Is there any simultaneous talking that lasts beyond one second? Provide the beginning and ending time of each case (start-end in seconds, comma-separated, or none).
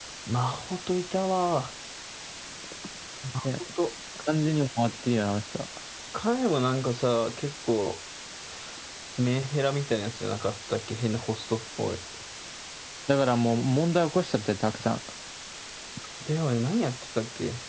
none